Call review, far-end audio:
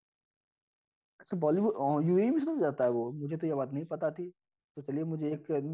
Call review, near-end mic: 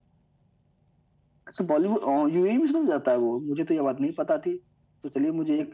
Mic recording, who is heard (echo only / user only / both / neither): echo only